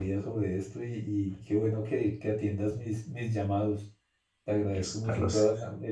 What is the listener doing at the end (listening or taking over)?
listening